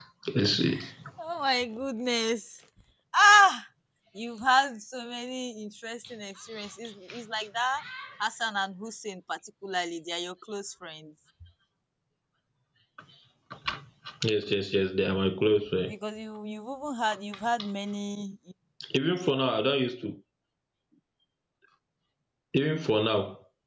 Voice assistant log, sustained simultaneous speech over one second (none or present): none